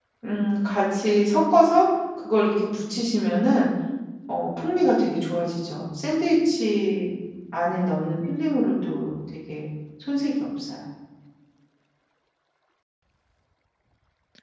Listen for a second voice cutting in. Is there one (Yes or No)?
No